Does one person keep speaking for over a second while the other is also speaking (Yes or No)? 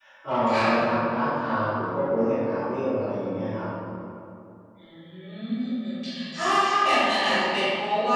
No